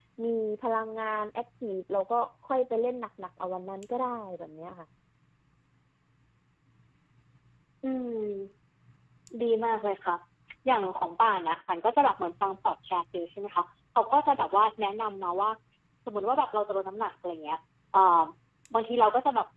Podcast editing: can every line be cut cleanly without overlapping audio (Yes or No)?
Yes